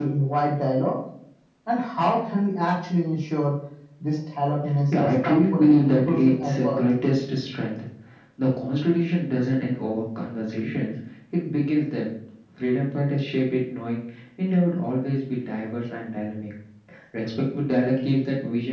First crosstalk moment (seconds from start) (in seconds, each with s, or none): 4.9 s